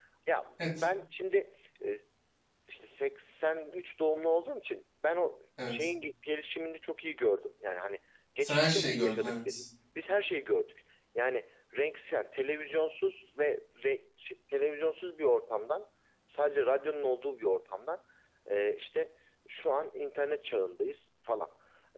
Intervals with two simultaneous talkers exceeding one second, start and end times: 8.4-9.6

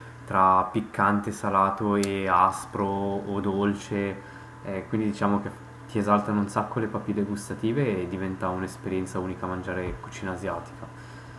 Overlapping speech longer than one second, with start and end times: none

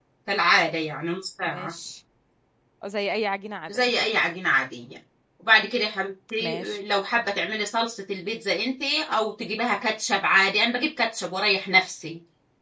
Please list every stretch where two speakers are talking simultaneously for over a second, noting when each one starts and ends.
none

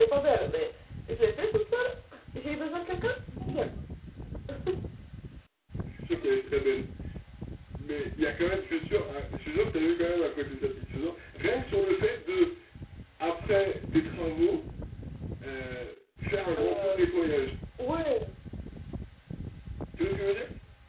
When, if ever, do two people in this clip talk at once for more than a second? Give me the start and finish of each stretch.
none

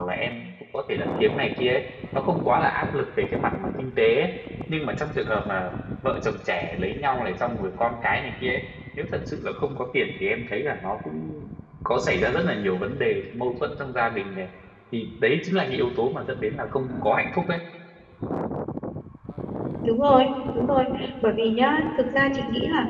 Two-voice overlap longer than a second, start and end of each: none

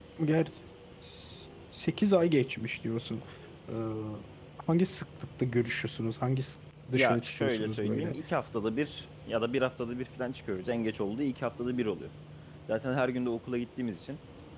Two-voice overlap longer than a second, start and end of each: 6.9-8.2

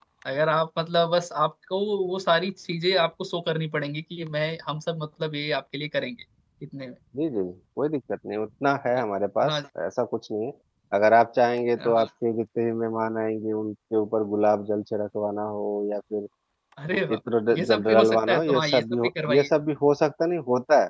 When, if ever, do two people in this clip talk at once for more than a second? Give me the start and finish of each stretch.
17.6-19.5

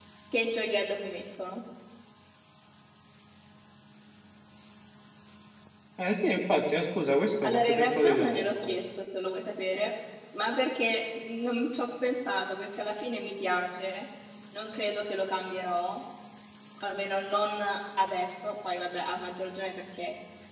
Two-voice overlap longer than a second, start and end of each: 7.4-8.8

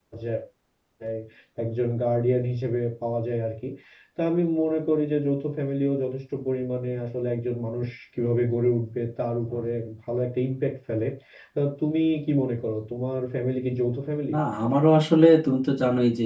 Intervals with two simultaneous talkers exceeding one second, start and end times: none

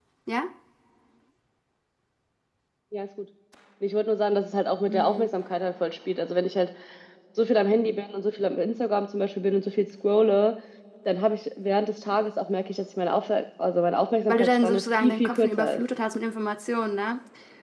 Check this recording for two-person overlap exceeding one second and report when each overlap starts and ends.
14.3-15.8

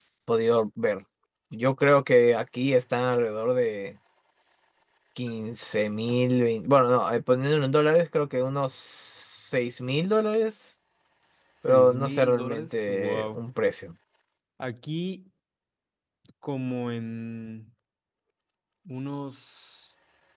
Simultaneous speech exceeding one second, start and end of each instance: 11.7-13.4

